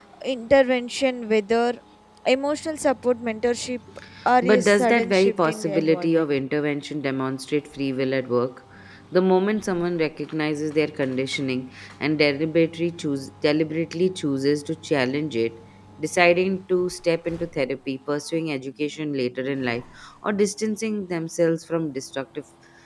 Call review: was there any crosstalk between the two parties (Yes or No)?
Yes